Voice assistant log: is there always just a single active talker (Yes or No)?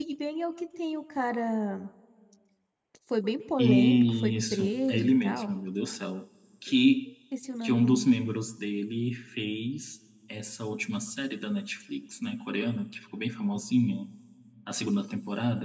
No